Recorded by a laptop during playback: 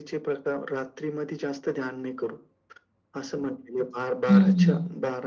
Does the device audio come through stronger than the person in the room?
No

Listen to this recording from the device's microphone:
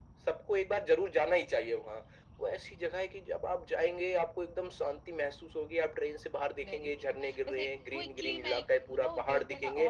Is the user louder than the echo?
No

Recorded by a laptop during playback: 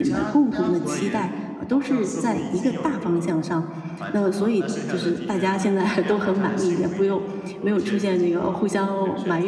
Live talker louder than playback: Yes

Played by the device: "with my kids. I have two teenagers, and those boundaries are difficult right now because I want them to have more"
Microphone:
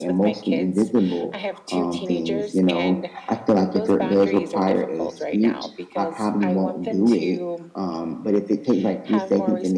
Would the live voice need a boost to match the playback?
No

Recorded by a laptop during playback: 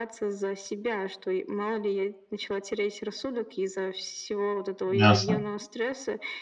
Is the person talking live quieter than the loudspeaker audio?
No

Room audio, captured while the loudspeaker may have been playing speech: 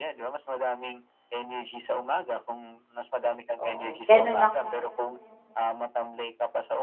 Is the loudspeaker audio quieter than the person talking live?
Yes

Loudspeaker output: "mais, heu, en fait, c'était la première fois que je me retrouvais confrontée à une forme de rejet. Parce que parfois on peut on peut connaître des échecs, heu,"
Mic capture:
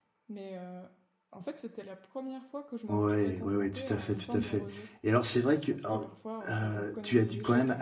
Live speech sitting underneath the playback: No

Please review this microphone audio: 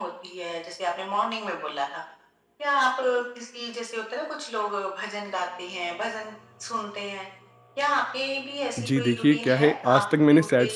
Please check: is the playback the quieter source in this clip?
Yes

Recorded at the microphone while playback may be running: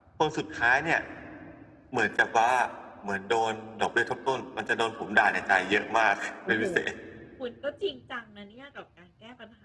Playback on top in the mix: Yes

